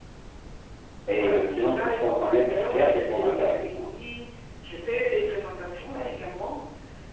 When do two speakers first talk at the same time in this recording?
1.1 s

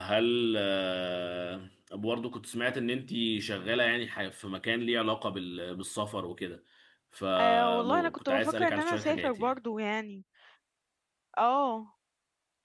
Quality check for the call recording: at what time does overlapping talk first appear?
7.4 s

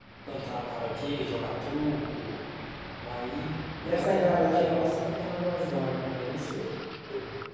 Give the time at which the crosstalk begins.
3.9 s

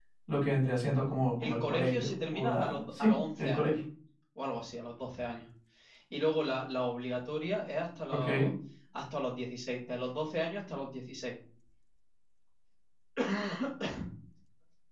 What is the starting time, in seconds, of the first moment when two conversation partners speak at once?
1.4 s

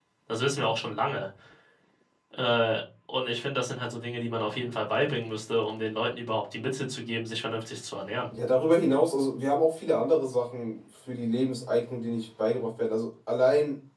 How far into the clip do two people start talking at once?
none

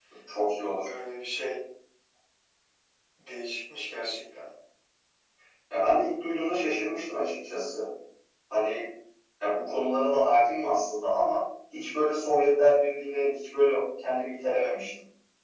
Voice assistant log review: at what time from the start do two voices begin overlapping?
none

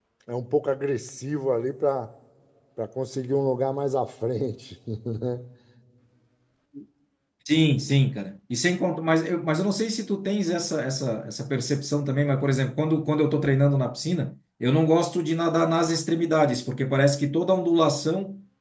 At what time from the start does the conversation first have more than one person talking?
none

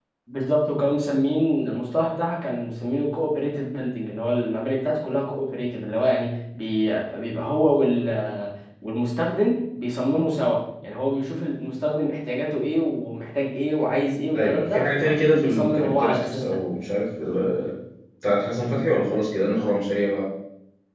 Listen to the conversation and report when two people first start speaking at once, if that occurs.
14.3 s

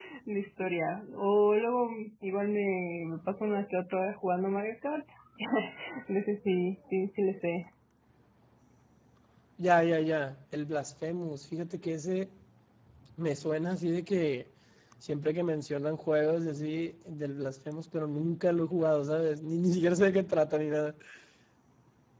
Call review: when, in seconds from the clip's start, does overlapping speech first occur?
none

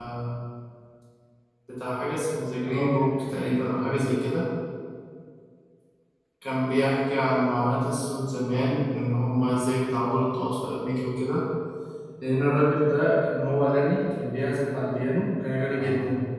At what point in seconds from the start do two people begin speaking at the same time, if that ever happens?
2.6 s

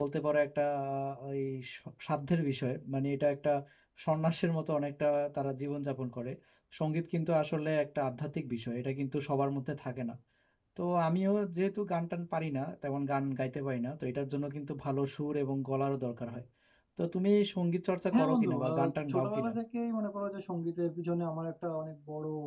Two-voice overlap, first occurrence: 18.1 s

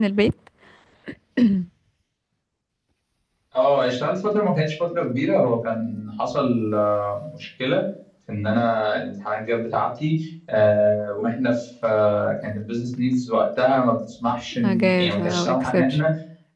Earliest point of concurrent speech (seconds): 14.5 s

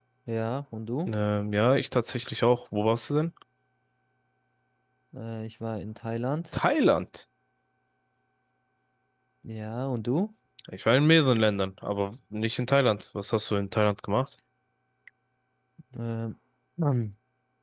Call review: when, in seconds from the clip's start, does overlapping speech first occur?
none

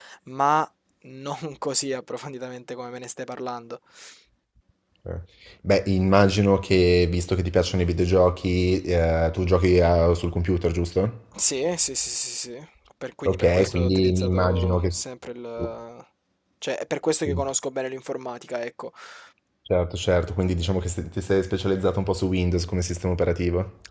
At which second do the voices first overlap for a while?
13.2 s

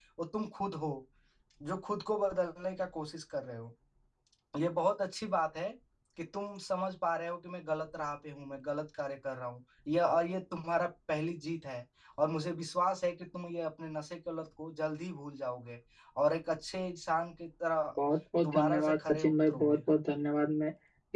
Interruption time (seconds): 18.4 s

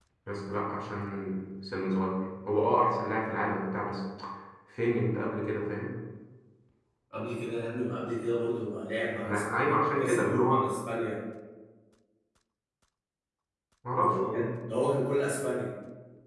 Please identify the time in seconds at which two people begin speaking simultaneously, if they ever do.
9.2 s

